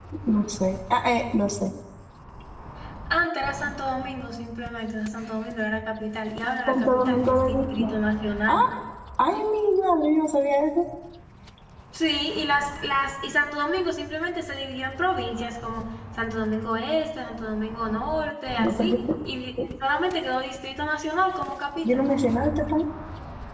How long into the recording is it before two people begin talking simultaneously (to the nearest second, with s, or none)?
7 s